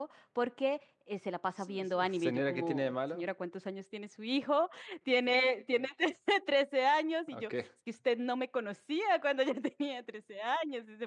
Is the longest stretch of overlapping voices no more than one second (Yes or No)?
No